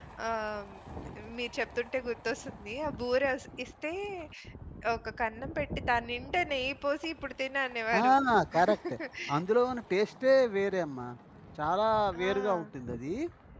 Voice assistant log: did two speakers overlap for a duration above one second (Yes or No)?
No